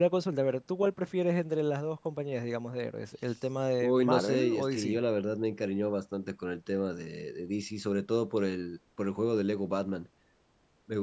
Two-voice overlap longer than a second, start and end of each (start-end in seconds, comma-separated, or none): 3.8-5.0